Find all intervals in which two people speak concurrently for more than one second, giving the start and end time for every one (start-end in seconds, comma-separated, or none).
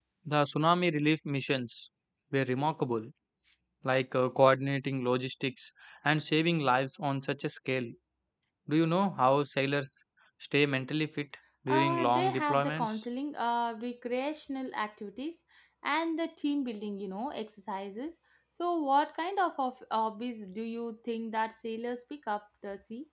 11.7-12.9